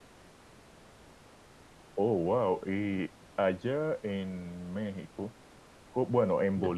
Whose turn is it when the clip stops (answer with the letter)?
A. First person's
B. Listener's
A